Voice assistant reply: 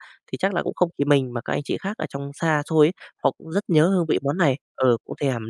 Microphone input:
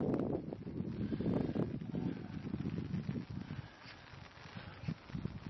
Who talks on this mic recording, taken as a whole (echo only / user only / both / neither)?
neither